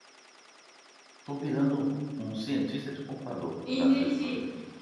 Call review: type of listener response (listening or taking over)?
taking over